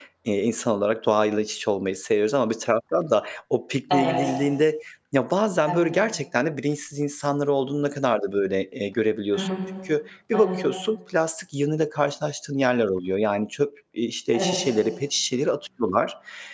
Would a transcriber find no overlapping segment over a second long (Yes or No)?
Yes